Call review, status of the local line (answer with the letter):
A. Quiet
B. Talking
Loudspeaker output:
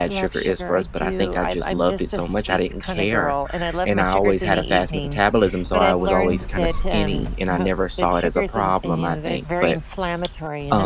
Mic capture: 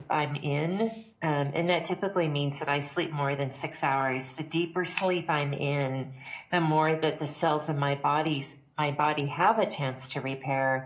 B